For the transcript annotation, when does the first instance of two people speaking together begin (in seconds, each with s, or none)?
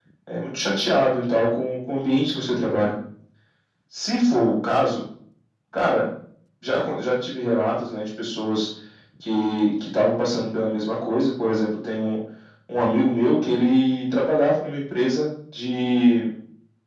none